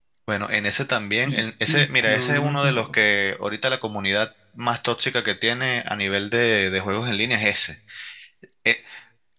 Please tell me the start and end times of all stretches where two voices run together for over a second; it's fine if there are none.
1.2-3.0

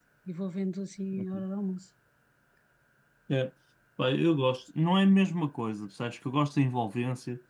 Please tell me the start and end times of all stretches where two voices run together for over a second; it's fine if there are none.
none

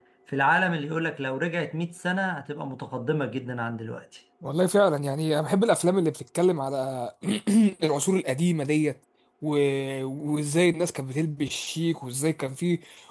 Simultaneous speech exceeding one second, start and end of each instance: none

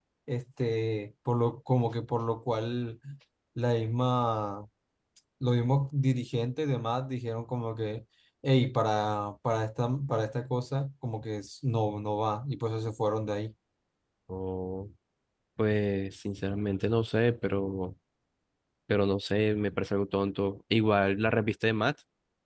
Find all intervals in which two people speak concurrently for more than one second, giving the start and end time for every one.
none

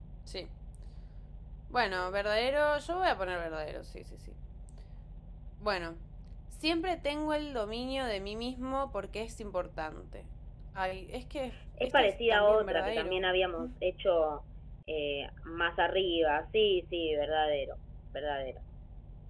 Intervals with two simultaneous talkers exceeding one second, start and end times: 11.8-13.2

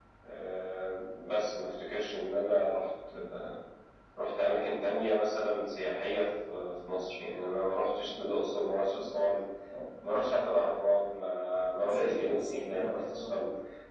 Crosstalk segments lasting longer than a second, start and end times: 11.8-13.4

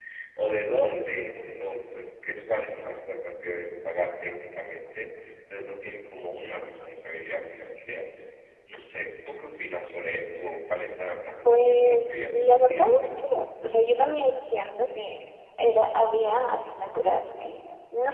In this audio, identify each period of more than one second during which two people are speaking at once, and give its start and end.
11.4-13.1

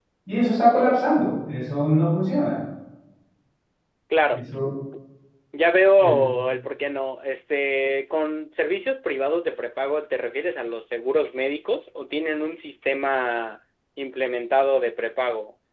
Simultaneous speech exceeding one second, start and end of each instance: none

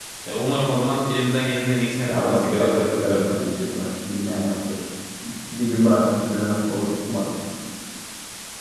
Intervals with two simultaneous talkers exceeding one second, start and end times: 2.0-3.4

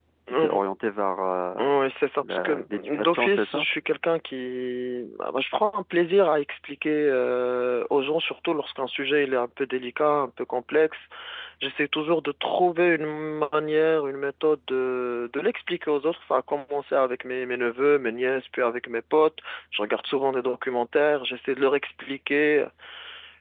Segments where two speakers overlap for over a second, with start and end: 2.2-3.6

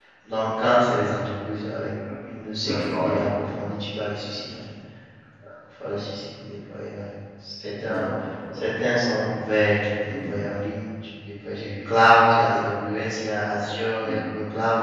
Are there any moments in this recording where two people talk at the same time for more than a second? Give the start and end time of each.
none

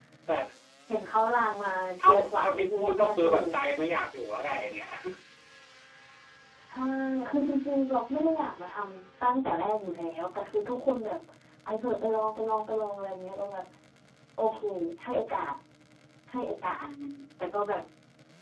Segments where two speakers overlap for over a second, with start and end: 2.0-3.5

